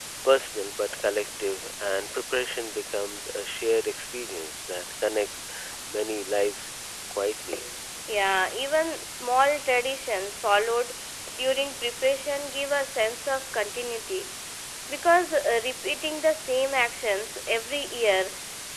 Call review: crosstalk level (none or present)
none